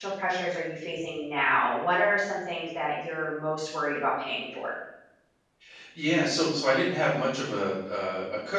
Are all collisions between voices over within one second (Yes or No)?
Yes